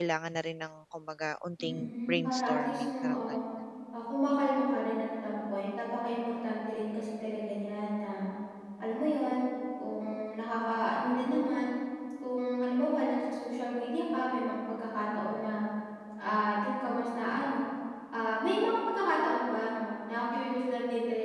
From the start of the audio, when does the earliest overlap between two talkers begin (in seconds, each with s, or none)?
1.6 s